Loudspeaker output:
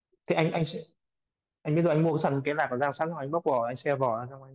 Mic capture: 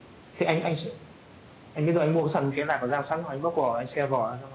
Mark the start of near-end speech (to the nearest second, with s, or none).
none